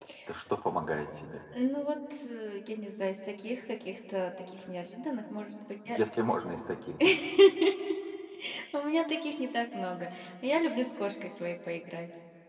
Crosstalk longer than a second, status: none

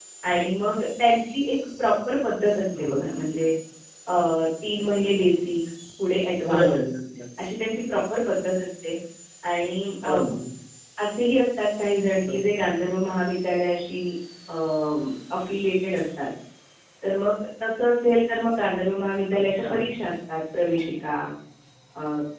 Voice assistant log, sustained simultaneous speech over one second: none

